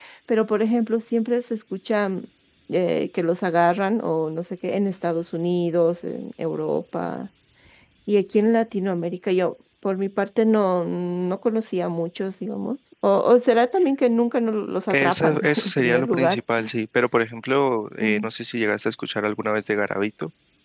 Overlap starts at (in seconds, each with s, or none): 14.9 s